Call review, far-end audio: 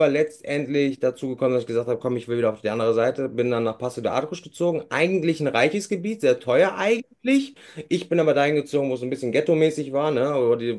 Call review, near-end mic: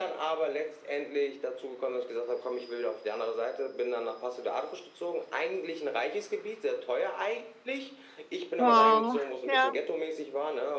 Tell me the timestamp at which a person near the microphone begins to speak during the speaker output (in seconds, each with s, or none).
8.6 s